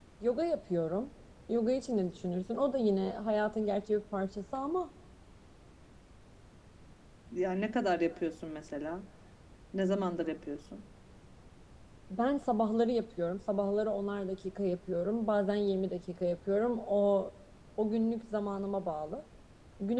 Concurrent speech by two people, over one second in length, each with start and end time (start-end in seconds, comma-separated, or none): none